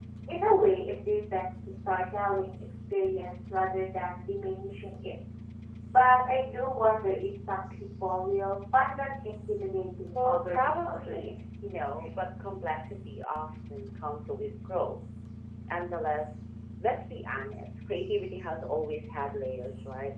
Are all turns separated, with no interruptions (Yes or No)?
No